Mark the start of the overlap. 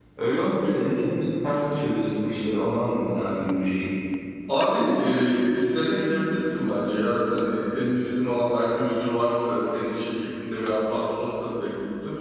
none

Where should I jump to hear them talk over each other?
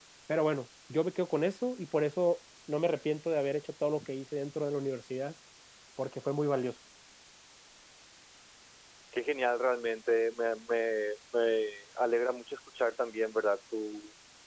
none

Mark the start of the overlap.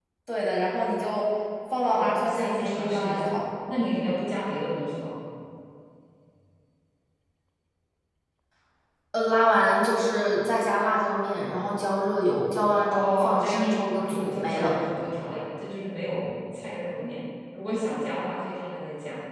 1.9 s

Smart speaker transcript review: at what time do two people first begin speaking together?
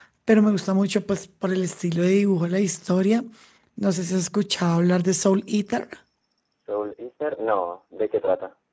none

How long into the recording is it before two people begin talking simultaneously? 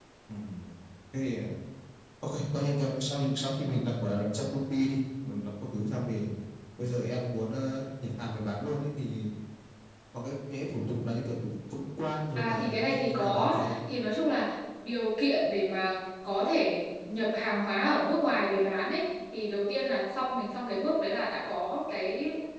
12.3 s

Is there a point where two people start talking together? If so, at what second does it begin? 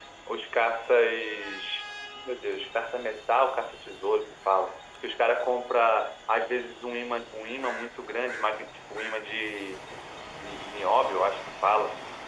none

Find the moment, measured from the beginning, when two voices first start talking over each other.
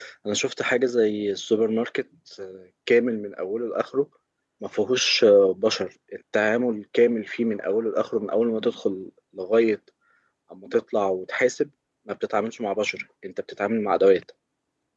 none

